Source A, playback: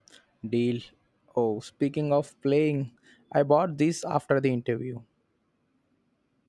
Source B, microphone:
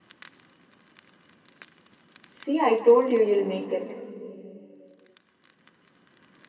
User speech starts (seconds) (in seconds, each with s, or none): 2.3 s